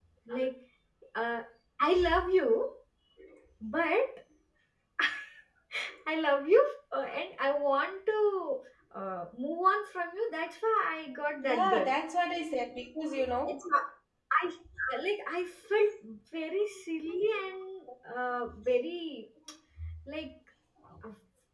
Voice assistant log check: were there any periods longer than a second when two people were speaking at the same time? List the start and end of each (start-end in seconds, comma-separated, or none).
none